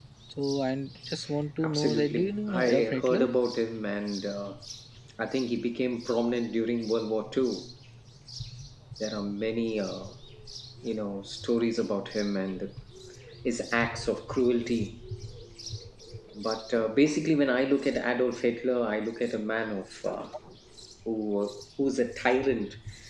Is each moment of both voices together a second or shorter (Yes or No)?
No